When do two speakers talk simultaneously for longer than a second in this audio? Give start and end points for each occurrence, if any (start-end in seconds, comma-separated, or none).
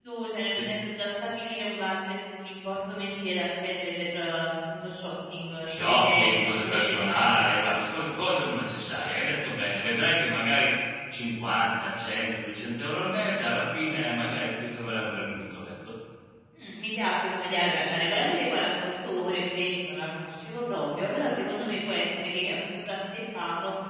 5.7-7.5